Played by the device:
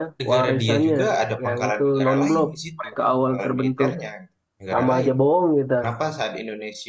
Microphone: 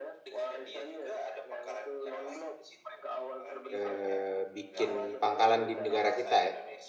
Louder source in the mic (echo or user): user